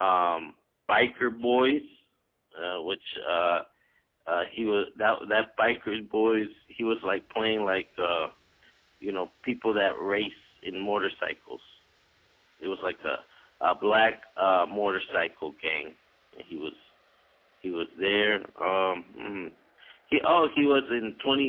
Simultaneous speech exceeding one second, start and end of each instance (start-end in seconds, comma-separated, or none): none